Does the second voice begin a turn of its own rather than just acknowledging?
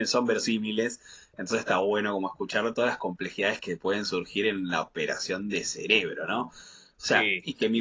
No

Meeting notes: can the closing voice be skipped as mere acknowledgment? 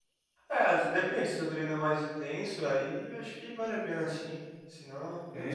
No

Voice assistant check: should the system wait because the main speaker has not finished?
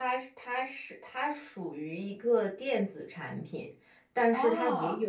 Yes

